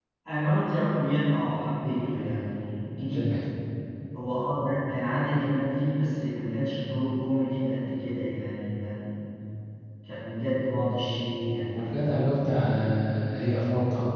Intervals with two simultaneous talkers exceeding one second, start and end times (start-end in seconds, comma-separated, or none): none